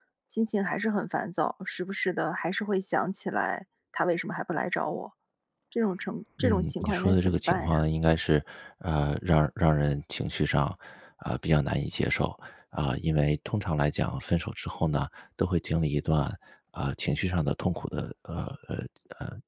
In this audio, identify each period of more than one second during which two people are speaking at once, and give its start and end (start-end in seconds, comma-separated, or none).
6.4-7.8